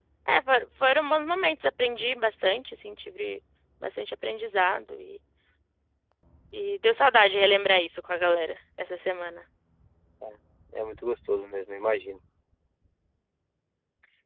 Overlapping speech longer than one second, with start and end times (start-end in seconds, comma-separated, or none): none